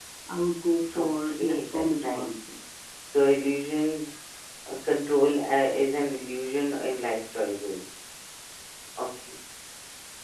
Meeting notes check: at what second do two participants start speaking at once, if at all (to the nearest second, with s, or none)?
1 s